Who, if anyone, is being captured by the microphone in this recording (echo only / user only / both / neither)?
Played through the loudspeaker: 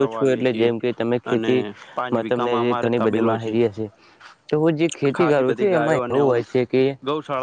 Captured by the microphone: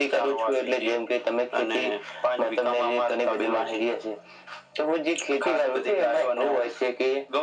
echo only